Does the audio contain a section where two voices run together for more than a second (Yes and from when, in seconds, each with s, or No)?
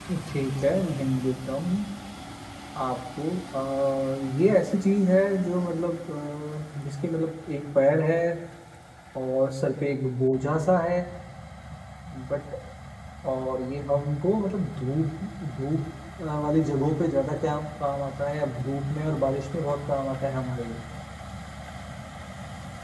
No